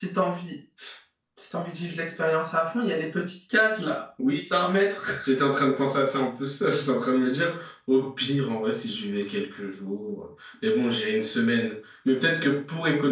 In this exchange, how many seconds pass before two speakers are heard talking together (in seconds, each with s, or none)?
none